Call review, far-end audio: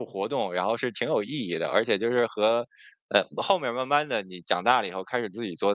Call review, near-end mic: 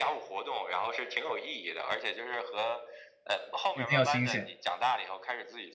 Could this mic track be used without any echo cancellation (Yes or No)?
No